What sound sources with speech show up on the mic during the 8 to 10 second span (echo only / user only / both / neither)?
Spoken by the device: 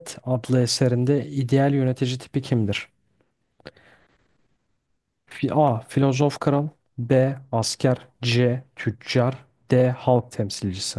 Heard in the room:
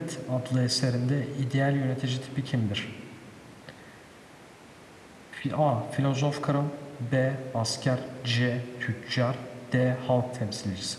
echo only